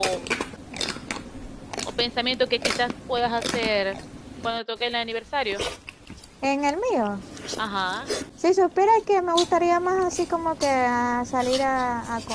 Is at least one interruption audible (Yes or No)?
No